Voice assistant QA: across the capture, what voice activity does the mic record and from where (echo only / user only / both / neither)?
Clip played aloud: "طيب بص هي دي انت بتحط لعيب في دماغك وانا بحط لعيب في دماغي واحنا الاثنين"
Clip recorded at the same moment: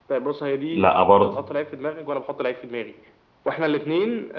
both